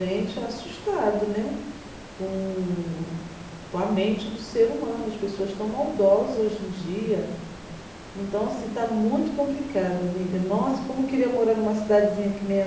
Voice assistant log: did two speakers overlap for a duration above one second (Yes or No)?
No